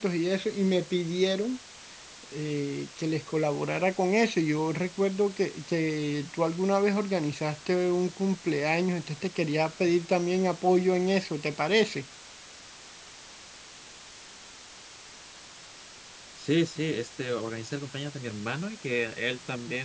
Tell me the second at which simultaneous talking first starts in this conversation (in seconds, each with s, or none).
none